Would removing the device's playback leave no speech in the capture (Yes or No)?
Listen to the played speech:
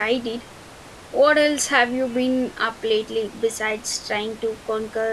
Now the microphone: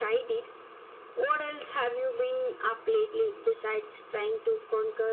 Yes